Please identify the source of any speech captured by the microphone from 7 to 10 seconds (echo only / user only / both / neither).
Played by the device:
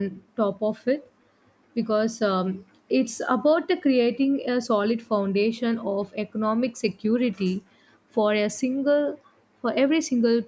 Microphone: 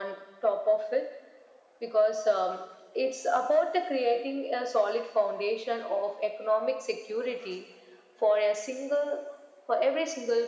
echo only